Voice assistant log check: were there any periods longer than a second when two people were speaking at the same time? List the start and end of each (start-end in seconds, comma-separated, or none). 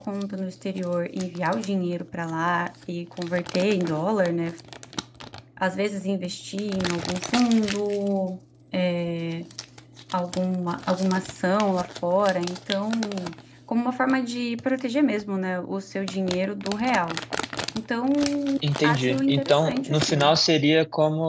18.8-20.3